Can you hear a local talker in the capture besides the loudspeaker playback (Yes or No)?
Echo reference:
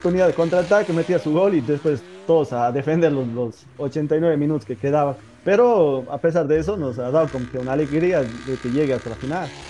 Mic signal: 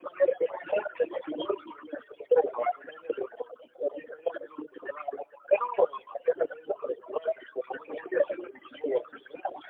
No